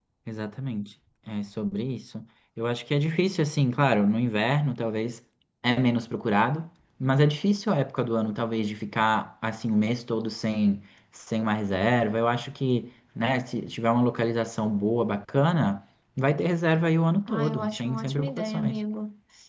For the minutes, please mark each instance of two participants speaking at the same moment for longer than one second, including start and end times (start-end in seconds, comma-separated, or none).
17.3-18.8